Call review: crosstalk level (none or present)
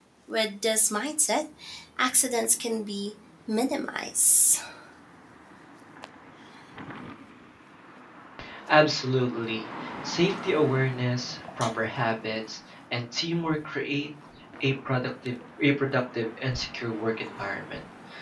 none